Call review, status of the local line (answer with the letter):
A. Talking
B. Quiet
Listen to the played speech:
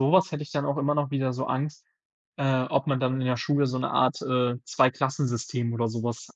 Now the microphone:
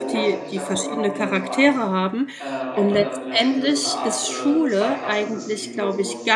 A